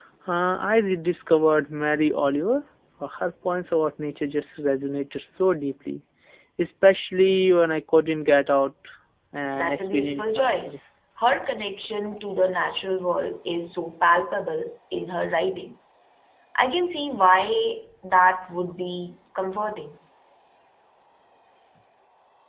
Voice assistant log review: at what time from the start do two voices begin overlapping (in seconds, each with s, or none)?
9.6 s